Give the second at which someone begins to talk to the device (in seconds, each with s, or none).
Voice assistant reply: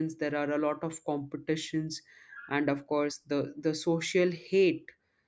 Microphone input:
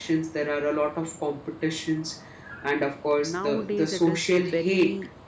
3.2 s